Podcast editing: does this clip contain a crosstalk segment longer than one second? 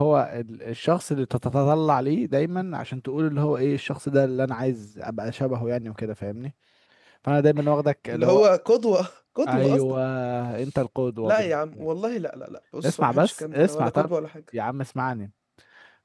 Yes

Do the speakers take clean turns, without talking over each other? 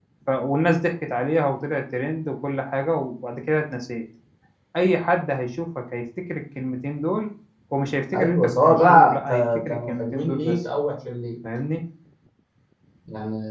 No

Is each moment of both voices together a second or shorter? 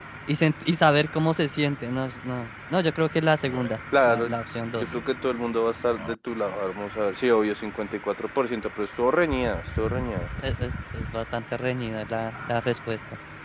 Yes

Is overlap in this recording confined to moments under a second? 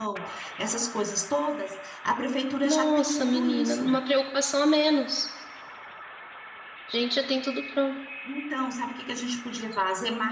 No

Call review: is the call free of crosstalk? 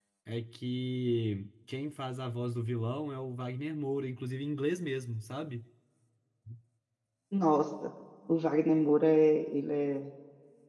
Yes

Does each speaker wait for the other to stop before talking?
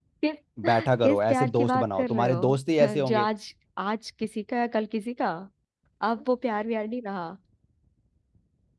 No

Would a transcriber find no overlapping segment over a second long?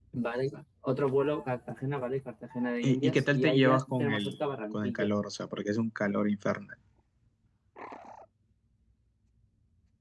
No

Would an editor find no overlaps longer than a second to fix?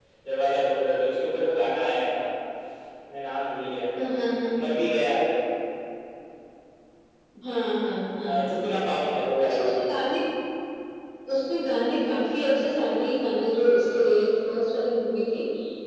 Yes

